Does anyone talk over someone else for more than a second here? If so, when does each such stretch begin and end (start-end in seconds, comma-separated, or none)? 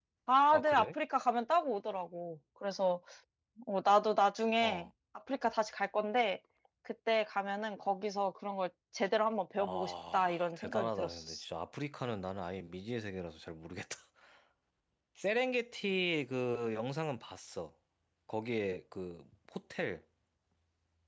9.6-11.4